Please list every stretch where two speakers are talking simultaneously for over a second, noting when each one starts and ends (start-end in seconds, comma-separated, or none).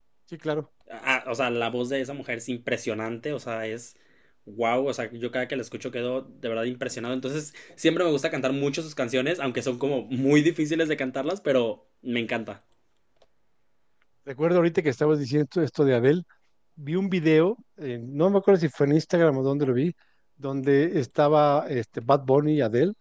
none